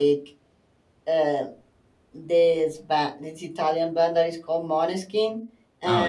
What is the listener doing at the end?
listening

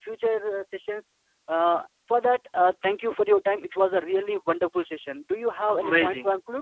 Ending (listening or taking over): taking over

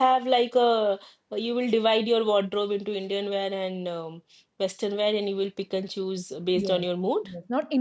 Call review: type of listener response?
taking over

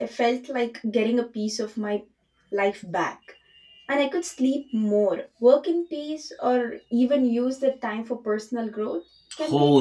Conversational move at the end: taking over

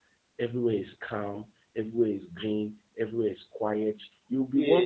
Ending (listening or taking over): listening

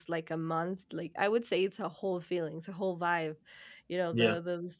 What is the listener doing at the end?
listening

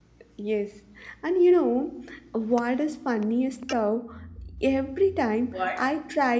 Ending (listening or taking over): listening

